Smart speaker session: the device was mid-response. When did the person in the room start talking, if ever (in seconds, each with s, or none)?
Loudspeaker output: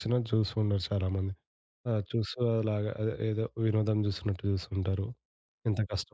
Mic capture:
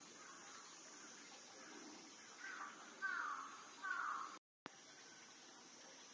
none